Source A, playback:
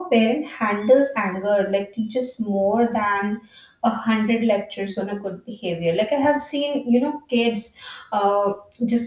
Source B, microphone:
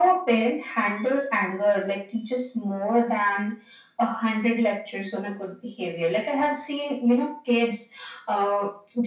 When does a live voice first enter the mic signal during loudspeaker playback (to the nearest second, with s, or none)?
none